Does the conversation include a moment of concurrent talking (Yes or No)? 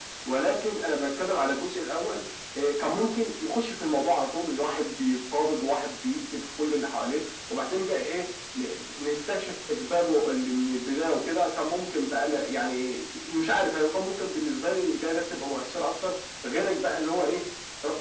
No